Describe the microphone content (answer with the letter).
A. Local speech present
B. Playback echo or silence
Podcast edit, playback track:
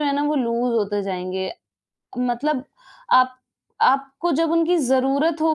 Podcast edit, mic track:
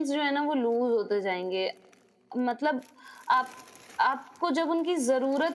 B